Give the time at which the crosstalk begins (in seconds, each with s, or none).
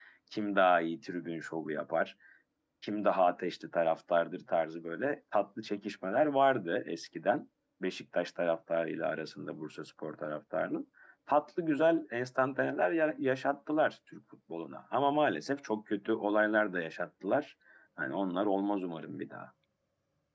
none